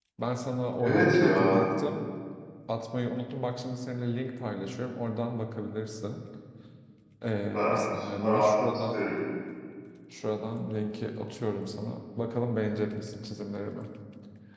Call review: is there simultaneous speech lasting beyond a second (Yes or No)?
Yes